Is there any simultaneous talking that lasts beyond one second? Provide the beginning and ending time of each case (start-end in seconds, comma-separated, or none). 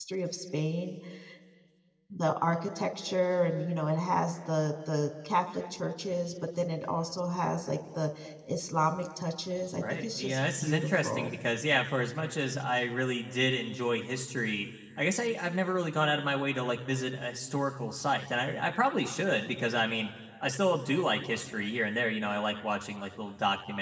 9.8-11.4